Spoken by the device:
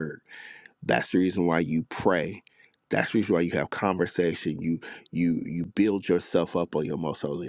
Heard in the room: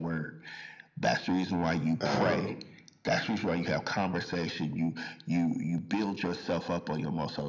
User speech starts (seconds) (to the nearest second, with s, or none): 2 s